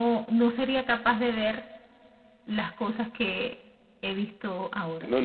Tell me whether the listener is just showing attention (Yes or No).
No